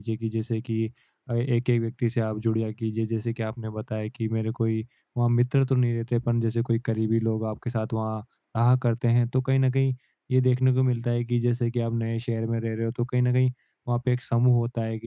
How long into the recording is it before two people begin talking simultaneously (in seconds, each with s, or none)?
none